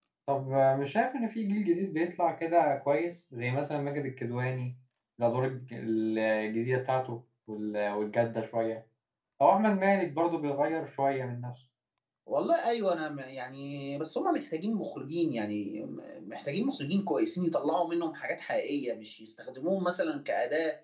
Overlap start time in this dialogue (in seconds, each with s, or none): none